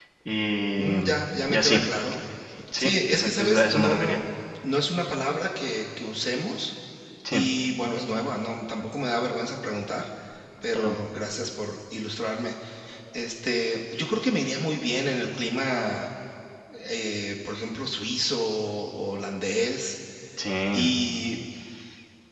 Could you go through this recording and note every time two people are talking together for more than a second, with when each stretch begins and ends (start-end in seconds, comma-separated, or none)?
2.8-4.2